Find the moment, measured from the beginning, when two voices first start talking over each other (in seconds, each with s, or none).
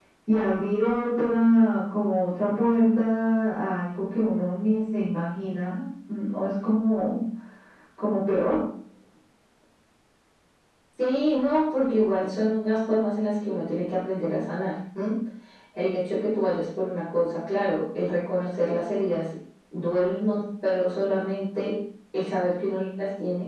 none